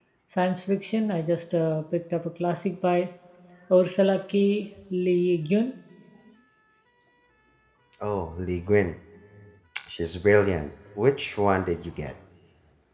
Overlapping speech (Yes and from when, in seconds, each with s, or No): No